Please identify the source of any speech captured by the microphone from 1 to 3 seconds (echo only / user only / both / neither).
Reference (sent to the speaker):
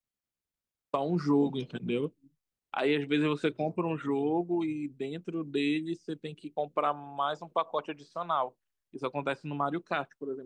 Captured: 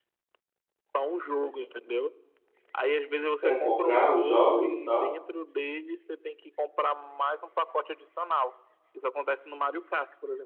echo only